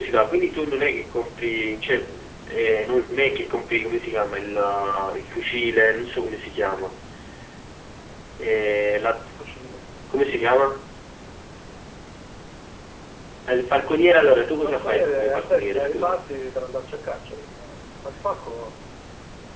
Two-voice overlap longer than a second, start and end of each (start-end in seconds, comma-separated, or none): 14.6-16.2